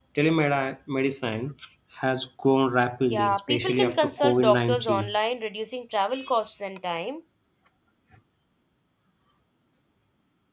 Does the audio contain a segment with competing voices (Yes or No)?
Yes